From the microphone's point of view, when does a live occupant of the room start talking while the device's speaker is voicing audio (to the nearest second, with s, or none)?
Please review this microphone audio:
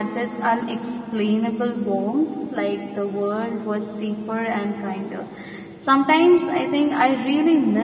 none